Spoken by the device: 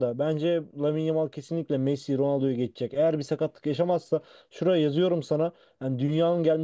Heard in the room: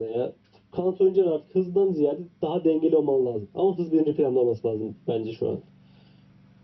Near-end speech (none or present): present